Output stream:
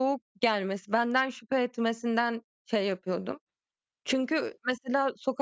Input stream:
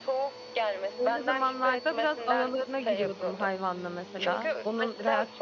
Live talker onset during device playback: 1.0 s

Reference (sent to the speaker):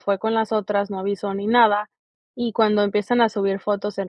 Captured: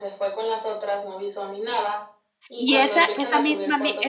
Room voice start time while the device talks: 2.6 s

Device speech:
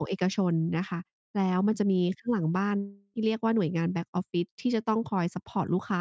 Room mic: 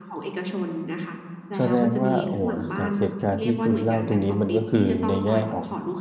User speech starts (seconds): 1.6 s

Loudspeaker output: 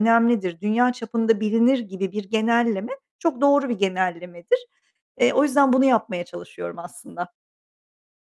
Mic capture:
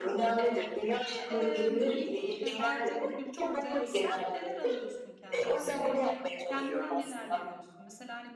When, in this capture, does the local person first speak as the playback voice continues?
0.4 s

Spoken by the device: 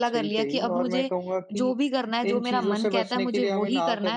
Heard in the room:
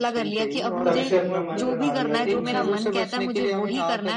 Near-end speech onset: 0.8 s

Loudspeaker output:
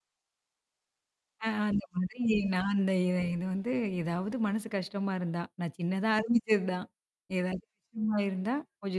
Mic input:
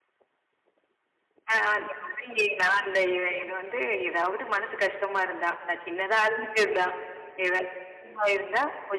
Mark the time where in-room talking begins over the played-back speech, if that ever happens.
none

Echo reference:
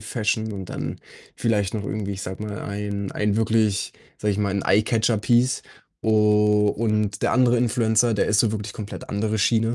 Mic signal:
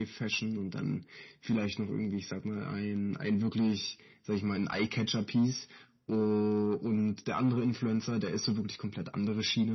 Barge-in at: none

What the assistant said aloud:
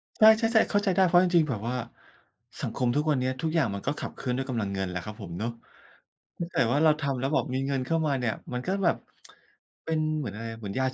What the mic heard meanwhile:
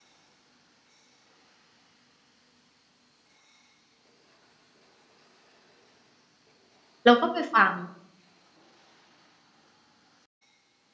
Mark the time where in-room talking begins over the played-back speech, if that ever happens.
7.0 s

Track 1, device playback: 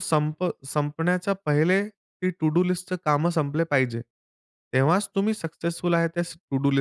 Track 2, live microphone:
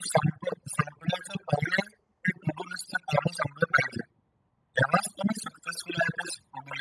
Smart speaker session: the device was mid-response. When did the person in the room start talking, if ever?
none

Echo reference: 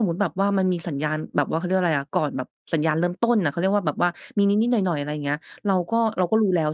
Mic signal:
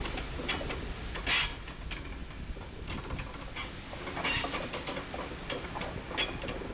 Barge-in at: none

